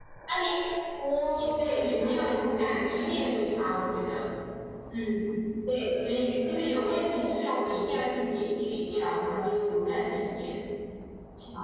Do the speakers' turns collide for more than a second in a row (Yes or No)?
Yes